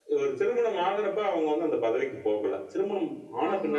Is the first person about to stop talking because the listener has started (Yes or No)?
No